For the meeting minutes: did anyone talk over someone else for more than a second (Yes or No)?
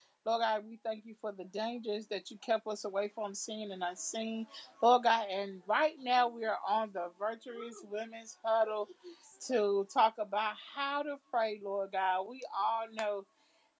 No